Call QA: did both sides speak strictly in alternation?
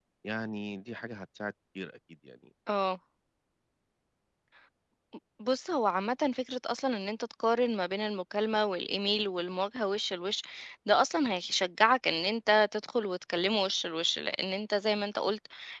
Yes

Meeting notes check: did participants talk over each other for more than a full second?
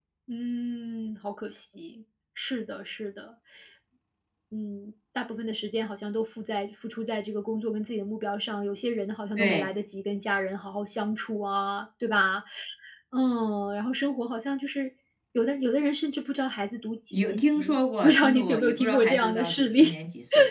Yes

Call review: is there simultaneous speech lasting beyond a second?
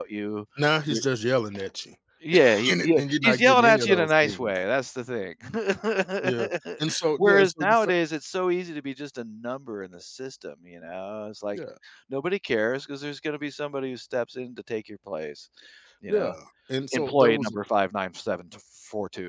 Yes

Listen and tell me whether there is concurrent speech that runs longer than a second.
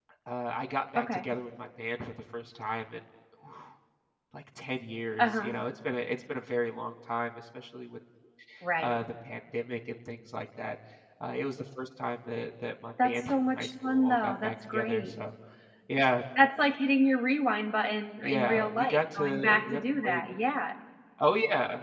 Yes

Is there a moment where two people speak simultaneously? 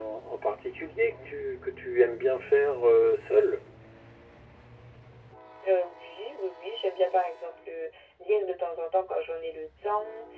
No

